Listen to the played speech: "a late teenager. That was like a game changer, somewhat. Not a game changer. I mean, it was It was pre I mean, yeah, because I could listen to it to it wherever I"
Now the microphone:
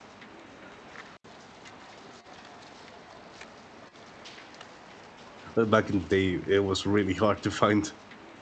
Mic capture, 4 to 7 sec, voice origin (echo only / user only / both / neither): user only